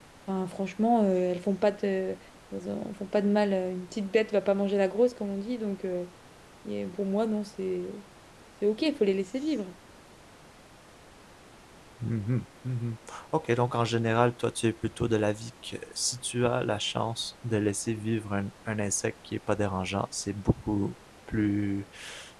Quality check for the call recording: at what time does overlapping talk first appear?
none

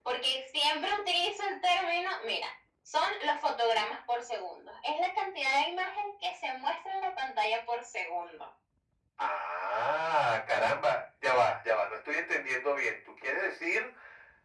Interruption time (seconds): none

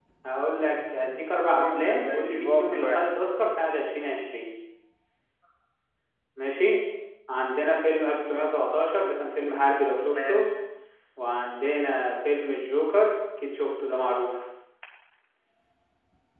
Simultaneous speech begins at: 1.5 s

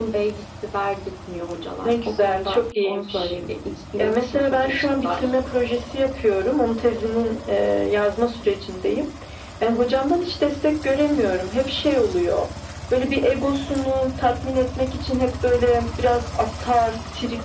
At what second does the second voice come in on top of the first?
1.8 s

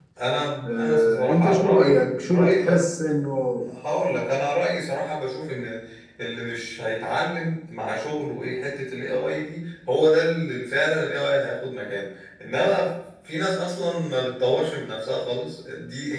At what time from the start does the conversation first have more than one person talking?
0.7 s

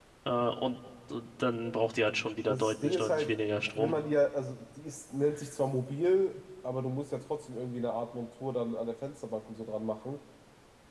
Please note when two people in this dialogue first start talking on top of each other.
2.5 s

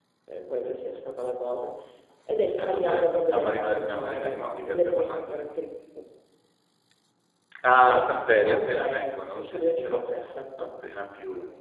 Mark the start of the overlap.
2.6 s

